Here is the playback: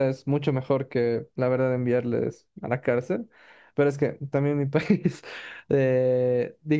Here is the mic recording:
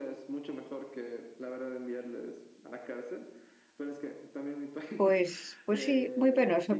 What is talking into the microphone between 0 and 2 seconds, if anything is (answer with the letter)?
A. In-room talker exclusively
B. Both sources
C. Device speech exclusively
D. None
C